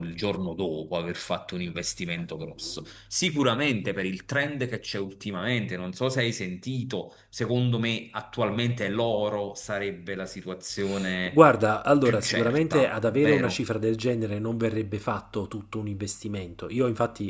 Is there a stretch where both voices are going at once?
Yes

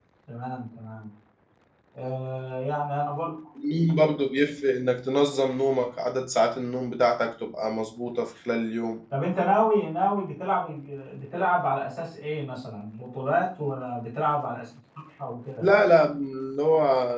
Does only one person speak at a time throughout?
Yes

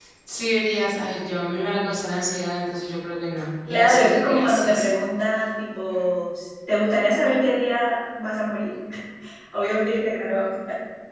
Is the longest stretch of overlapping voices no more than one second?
No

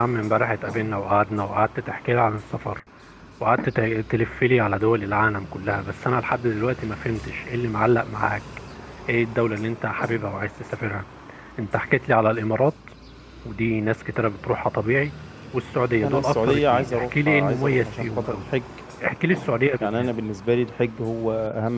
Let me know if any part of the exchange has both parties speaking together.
Yes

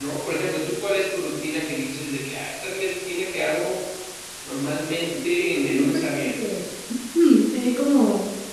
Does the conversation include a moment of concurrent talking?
Yes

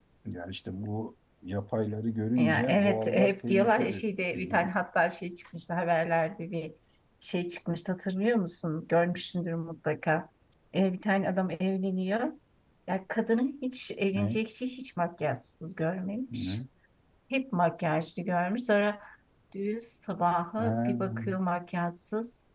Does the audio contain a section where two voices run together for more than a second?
Yes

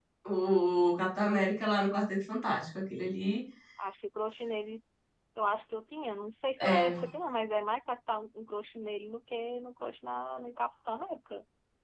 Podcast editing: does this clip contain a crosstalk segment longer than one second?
No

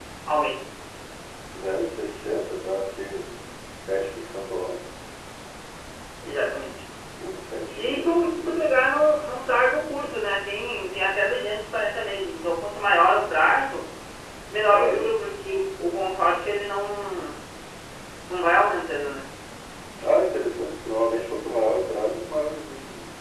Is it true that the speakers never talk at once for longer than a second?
Yes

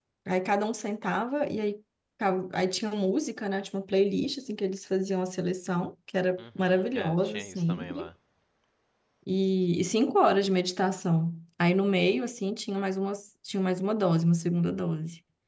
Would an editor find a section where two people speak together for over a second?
Yes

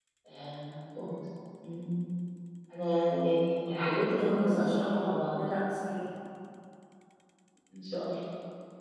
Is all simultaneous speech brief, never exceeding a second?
No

